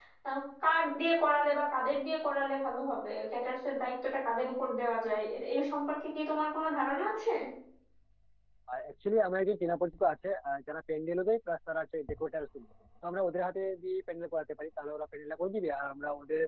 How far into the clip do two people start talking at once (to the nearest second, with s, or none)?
none